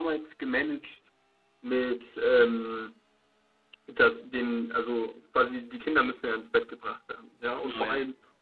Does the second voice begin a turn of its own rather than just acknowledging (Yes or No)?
No